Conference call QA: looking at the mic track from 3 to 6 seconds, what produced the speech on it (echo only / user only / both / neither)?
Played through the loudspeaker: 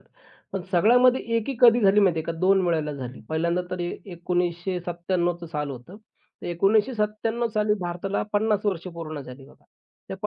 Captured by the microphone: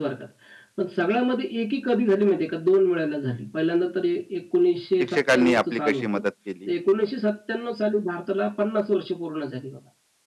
both